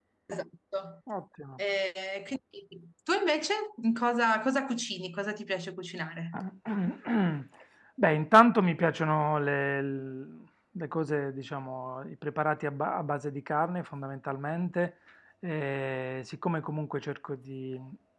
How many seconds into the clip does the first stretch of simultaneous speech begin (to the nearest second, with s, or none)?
none